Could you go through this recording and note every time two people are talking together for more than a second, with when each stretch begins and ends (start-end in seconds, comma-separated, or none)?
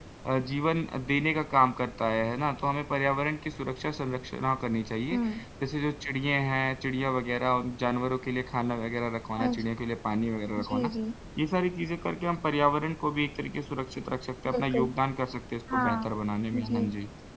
none